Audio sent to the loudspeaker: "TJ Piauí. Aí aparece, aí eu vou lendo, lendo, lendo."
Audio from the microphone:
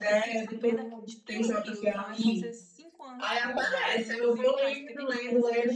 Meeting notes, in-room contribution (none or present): present